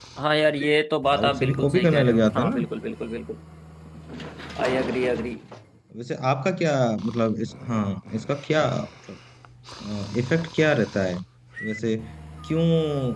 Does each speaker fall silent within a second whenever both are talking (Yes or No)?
No